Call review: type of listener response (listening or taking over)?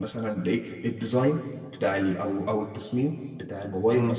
listening